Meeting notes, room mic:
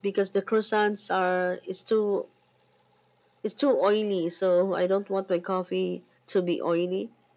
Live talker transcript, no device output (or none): none